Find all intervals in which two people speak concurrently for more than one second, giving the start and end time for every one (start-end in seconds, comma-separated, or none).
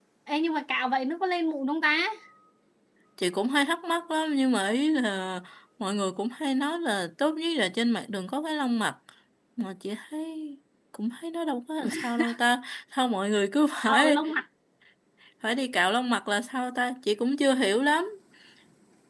none